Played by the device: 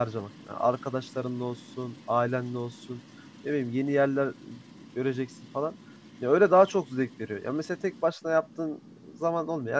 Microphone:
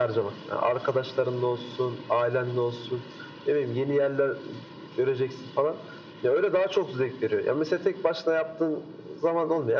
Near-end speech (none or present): none